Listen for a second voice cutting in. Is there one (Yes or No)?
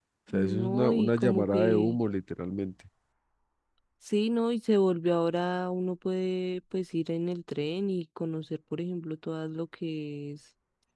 Yes